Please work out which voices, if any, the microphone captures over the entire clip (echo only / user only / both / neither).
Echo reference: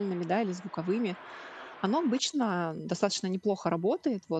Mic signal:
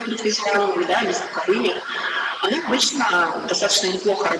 echo only